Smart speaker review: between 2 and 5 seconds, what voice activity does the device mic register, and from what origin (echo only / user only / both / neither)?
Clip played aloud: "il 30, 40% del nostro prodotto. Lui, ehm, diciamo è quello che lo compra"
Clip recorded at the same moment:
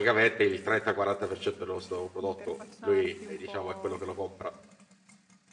both